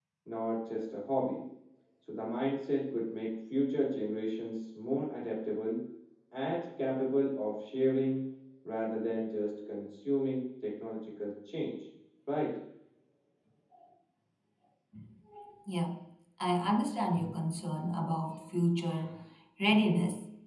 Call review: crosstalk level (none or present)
none